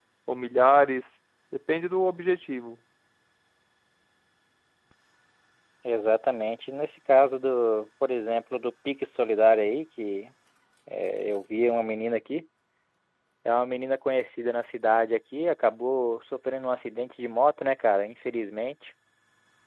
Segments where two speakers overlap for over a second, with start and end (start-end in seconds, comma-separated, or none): none